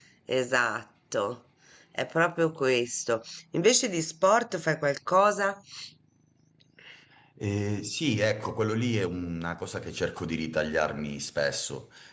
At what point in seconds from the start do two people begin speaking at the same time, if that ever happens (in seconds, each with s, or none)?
none